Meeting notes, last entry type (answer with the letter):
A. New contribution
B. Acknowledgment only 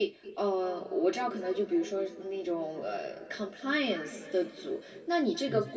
B